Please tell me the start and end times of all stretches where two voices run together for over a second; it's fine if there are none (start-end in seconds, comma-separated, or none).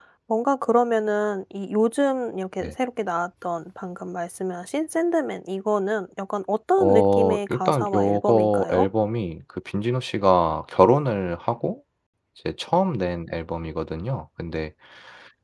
6.8-8.9